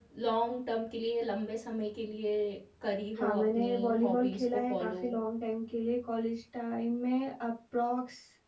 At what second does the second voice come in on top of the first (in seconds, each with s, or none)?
3.1 s